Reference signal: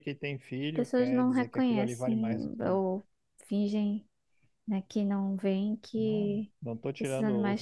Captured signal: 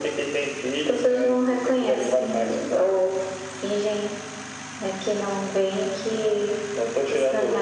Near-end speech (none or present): none